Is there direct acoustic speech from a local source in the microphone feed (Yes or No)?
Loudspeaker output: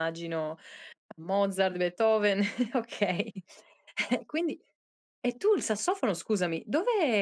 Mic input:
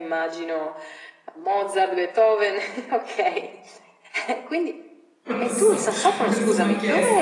Yes